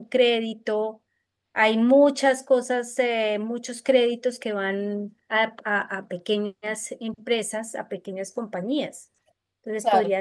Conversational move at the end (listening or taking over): listening